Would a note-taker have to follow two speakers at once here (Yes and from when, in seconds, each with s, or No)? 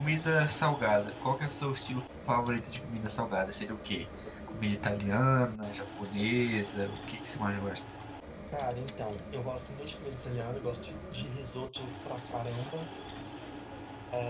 No